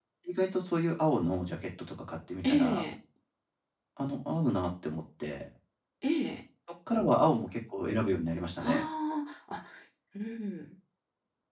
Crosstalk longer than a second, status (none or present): none